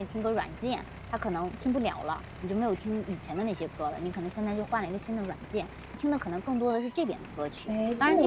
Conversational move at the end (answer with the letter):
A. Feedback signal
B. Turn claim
B